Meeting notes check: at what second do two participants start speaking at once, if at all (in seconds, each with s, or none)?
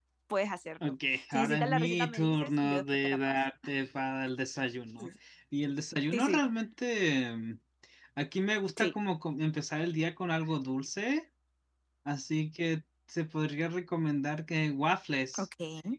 0.8 s